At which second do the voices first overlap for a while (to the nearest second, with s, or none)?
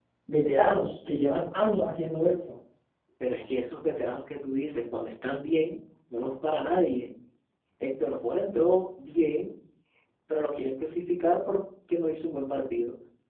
none